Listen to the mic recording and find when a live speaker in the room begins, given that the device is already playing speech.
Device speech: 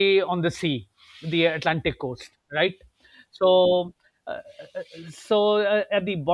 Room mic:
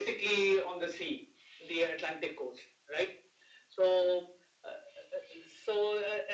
none

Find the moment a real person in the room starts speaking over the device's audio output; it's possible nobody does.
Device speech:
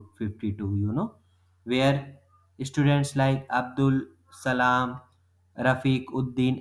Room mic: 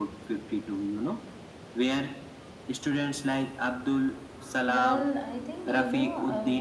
4.7 s

